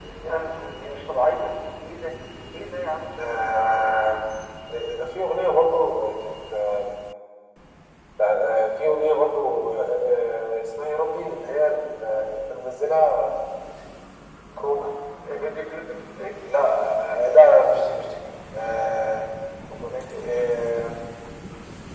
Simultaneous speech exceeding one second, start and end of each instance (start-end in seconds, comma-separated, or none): none